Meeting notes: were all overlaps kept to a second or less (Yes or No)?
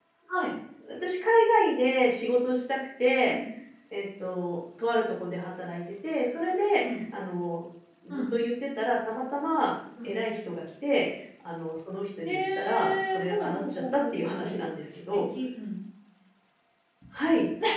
No